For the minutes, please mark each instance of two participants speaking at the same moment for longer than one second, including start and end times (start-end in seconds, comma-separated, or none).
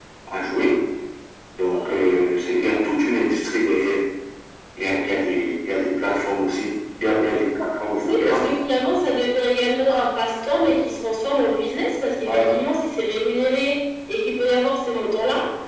none